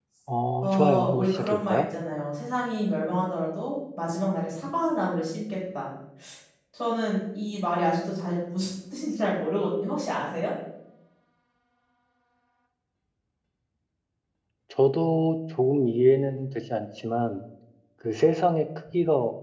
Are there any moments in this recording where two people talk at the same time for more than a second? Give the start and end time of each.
0.6-1.8

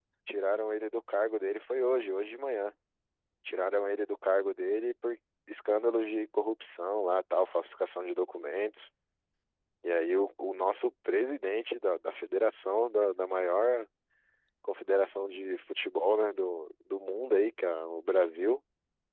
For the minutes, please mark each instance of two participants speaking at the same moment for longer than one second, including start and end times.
none

